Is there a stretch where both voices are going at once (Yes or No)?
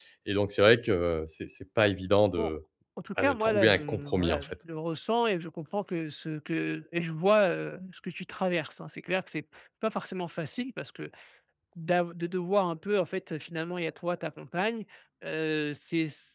Yes